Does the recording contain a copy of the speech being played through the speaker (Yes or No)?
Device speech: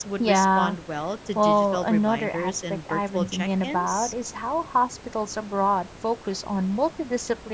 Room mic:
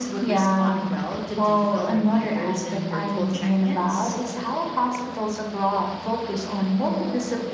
Yes